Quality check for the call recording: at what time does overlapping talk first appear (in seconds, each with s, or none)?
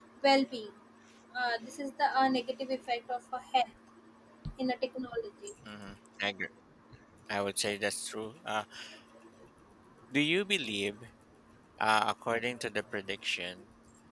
none